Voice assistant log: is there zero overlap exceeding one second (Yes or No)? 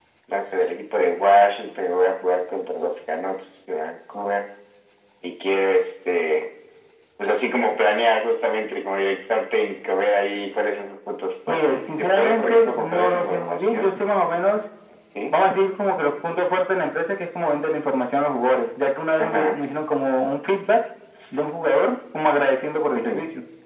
No